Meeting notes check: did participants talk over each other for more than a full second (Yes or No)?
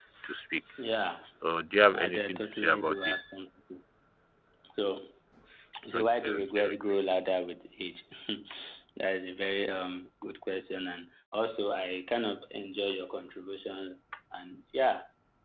Yes